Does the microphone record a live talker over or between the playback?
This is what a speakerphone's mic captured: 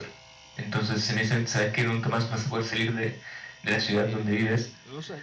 Yes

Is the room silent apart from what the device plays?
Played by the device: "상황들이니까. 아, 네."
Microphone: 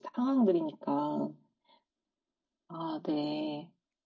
Yes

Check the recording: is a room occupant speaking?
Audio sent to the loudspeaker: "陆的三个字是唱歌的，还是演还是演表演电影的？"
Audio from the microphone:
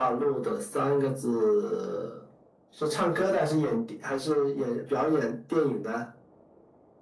No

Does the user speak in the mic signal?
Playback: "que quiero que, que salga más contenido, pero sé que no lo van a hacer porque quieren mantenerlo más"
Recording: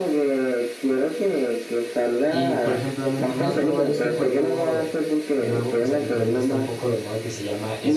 Yes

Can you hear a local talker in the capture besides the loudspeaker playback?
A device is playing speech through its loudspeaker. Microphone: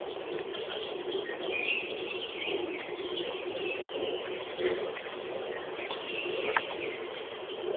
No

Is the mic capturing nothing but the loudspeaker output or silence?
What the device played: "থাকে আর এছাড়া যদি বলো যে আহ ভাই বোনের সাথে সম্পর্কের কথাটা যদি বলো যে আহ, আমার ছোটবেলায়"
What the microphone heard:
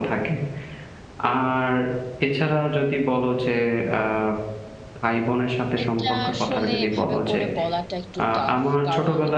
No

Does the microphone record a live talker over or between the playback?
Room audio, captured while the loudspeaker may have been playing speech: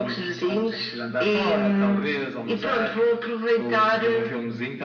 No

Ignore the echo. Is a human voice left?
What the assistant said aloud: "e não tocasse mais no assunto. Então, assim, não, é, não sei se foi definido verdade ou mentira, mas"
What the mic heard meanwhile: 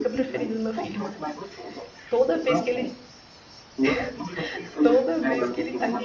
Yes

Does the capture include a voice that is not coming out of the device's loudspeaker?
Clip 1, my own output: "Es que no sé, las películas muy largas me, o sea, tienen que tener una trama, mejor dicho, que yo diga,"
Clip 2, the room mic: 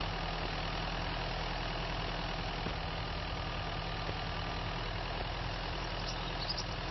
No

